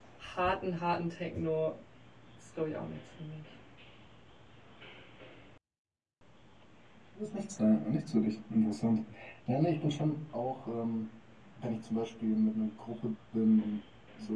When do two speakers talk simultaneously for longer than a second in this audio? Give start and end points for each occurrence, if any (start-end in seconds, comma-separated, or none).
none